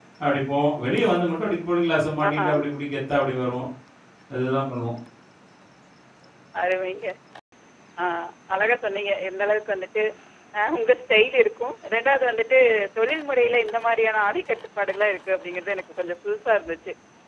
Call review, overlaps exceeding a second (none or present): none